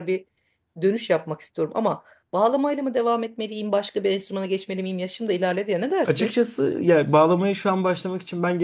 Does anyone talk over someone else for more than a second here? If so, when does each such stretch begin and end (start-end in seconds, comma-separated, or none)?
none